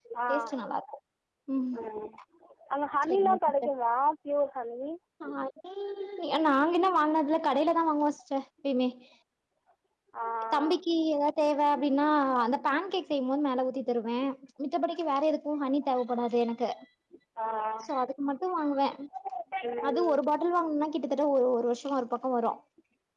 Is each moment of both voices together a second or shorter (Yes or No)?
Yes